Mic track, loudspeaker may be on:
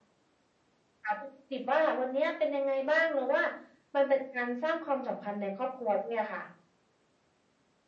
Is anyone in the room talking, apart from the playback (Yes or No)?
No